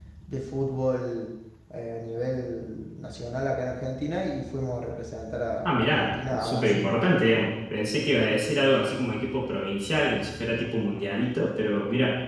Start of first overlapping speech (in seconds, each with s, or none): 5.7 s